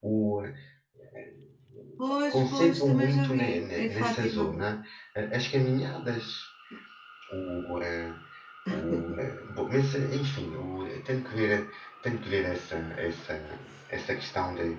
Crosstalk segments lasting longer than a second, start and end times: 2.3-4.4

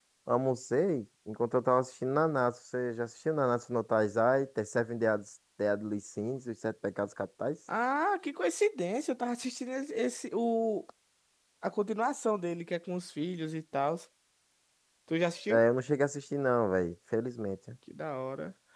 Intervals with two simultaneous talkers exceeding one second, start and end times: none

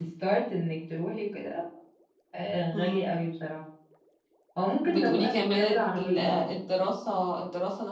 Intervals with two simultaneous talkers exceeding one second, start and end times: 4.9-6.4

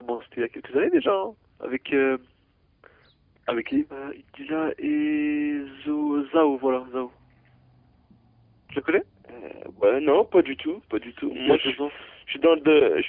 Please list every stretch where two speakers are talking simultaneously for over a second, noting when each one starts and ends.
none

